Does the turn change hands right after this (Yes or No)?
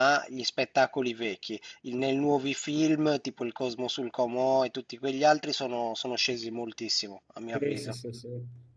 Yes